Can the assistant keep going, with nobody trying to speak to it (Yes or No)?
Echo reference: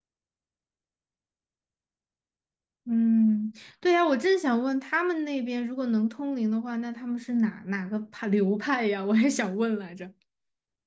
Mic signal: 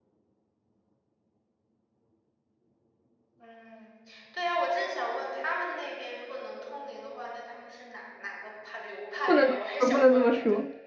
No